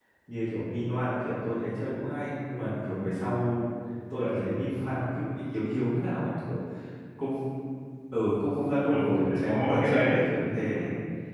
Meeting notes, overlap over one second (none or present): present